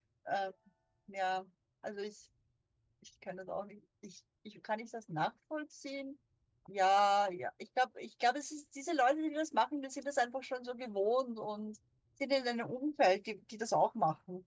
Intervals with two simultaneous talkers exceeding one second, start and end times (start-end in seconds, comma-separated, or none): none